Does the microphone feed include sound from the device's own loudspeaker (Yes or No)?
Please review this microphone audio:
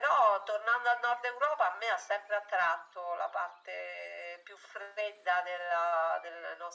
Yes